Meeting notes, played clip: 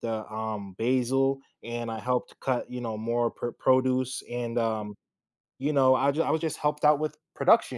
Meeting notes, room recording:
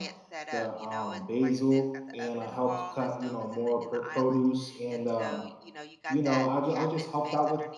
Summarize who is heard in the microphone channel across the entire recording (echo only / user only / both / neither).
both